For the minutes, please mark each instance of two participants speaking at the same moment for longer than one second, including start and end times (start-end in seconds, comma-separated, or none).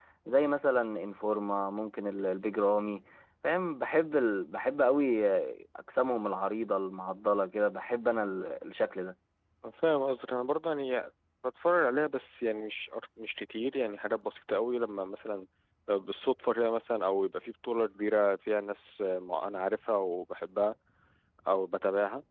none